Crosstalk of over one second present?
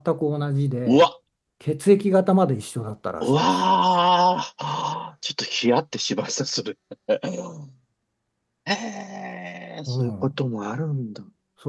No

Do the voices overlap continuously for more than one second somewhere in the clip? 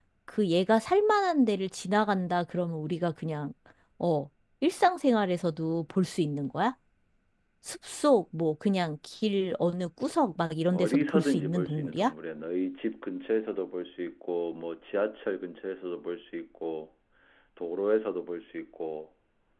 Yes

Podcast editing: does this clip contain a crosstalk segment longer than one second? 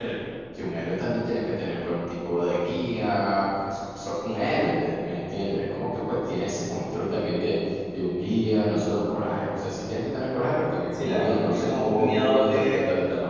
Yes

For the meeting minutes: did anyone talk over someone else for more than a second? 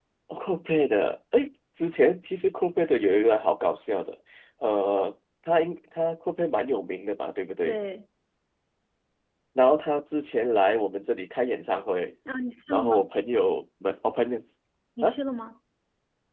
No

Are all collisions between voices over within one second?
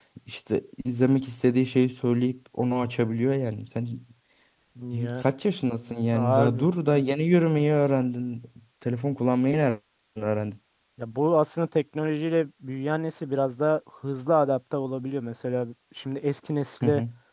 Yes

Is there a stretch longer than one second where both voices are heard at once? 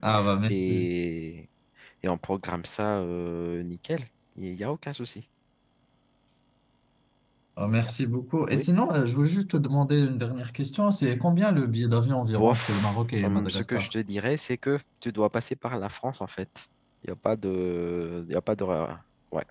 Yes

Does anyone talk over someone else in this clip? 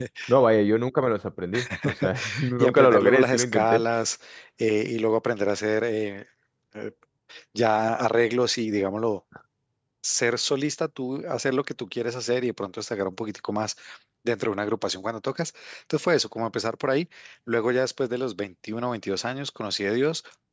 Yes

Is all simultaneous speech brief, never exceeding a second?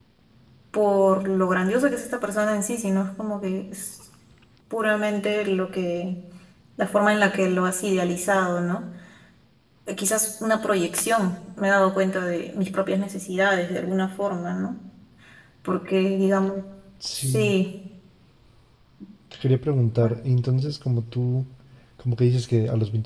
Yes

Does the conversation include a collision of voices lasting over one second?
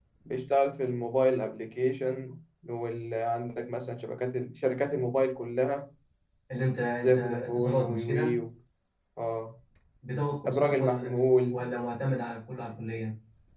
Yes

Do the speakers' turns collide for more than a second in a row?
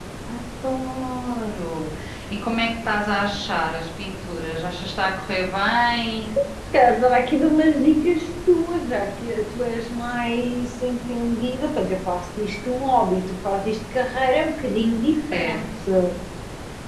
No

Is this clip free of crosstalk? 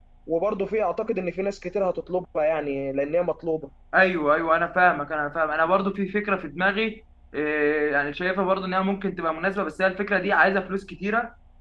Yes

